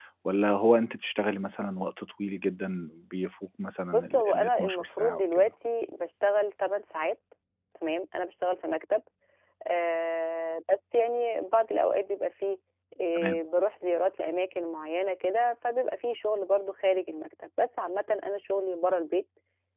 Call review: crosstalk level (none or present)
present